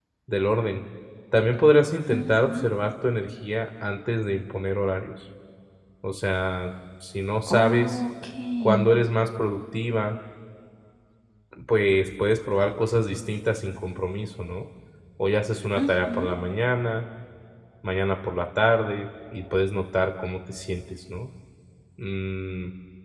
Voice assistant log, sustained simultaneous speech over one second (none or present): none